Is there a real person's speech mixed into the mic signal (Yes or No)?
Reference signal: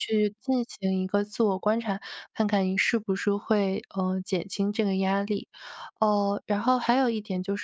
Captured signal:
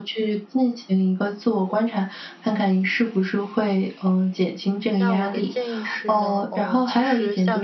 Yes